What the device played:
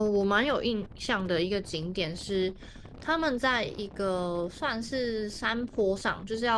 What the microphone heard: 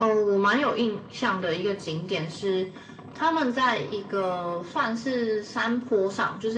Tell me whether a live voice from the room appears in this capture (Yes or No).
No